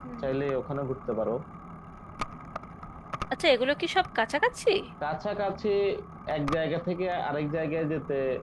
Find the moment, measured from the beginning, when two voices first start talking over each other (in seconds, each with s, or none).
none